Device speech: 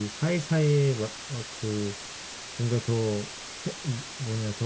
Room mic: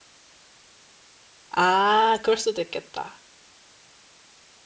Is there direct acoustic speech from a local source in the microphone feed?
Yes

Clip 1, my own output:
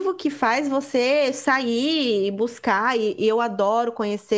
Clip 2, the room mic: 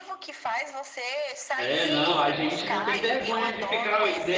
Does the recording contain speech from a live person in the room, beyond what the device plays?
Yes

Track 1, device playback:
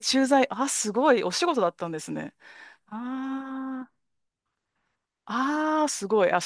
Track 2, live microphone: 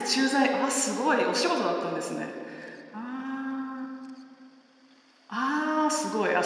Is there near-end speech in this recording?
No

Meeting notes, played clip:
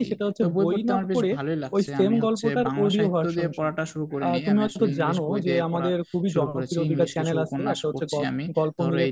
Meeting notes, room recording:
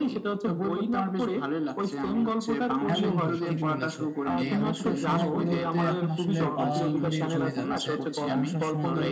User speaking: Yes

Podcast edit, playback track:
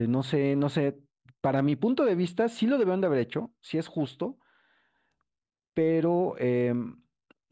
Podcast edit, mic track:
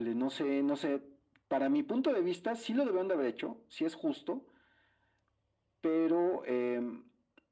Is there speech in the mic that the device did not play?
No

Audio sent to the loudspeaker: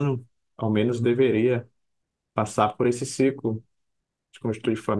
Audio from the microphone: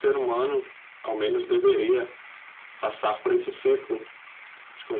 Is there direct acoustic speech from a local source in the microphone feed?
No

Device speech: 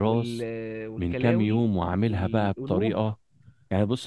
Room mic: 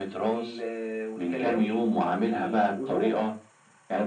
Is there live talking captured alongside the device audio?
No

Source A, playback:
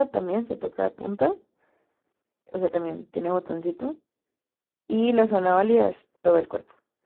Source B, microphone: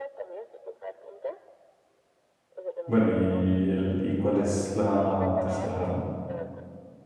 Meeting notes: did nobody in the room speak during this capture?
No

